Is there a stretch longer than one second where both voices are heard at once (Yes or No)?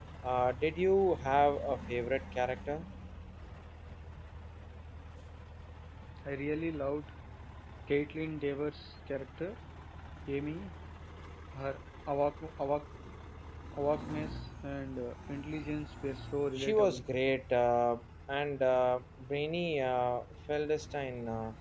No